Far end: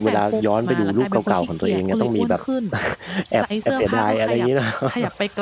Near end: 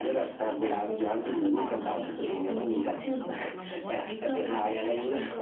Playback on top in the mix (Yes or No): Yes